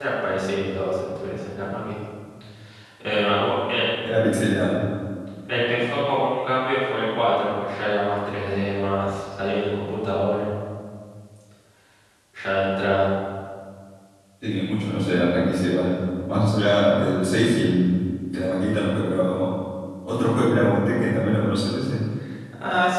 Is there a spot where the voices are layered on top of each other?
No

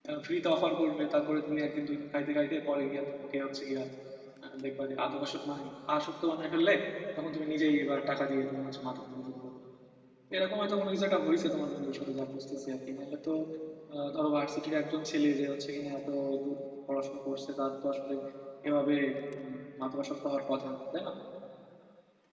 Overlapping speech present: No

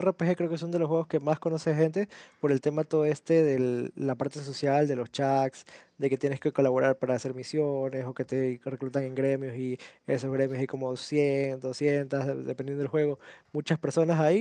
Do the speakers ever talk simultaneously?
No

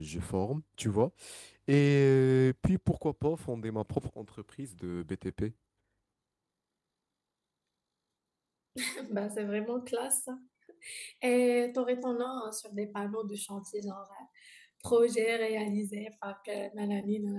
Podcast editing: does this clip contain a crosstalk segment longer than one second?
No

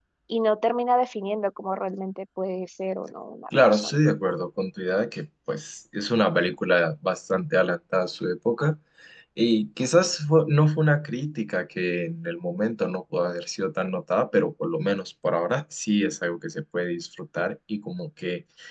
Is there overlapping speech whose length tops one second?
No

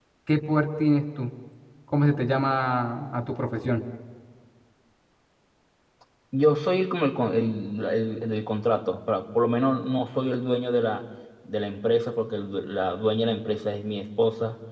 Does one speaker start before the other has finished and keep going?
No

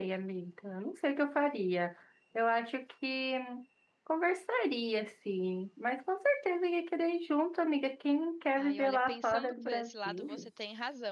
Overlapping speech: Yes, from 8.6 s

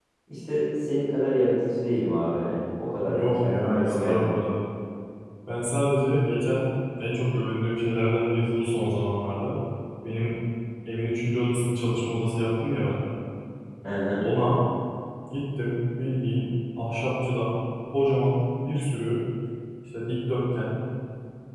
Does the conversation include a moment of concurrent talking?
Yes, from 3.1 s

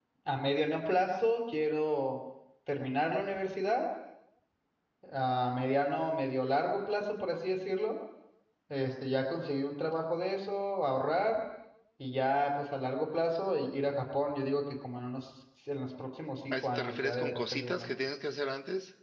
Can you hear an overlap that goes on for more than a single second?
Yes, from 16.5 s

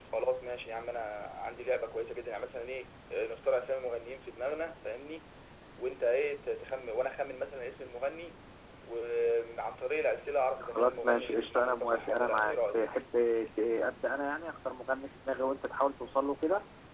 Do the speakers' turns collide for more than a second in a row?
Yes, from 10.6 s

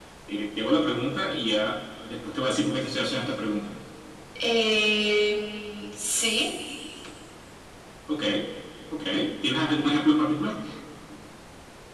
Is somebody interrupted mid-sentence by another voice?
No

